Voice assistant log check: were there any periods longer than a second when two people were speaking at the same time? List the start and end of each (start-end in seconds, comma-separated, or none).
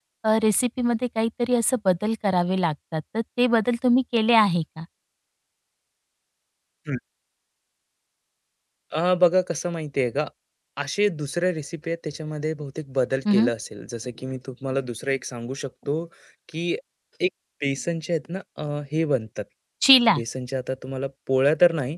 none